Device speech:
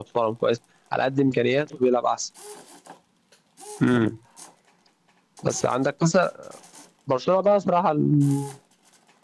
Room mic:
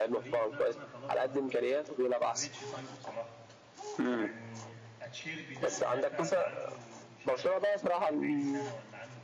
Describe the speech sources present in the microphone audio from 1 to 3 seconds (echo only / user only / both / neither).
both